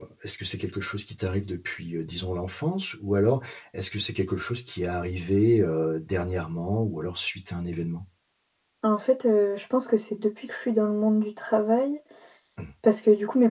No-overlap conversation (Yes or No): Yes